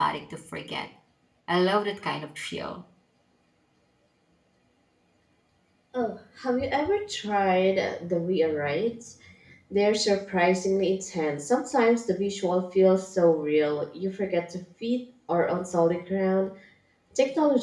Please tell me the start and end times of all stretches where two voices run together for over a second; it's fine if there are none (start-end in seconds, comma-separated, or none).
none